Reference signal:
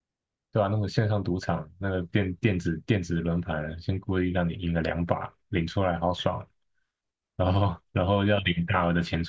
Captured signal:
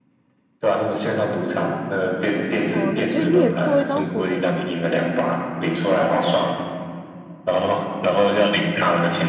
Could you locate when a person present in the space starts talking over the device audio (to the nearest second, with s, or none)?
3 s